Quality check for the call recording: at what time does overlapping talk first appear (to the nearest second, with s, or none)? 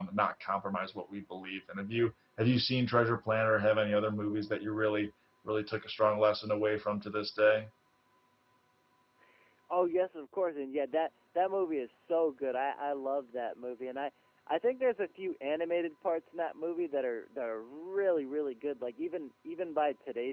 none